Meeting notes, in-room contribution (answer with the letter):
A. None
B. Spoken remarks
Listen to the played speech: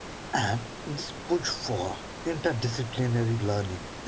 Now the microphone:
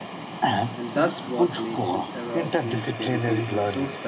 B